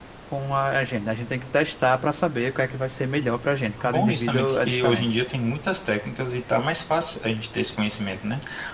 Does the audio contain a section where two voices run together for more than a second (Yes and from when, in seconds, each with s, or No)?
Yes, from 3.8 s